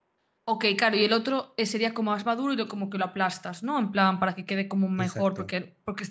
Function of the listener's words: listening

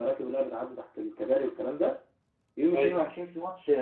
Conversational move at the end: listening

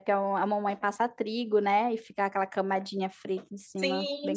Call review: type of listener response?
taking over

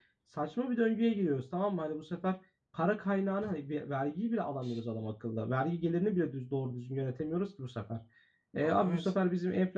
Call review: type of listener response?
listening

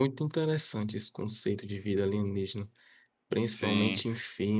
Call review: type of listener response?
listening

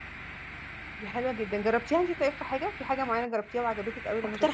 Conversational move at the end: taking over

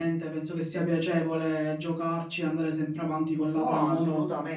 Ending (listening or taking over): taking over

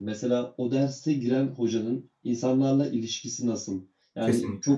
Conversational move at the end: listening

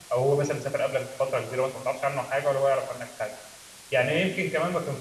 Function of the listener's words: listening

